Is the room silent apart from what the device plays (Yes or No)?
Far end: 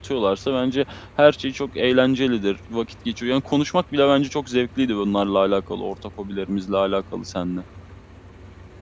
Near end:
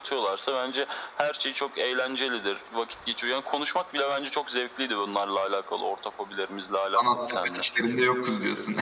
No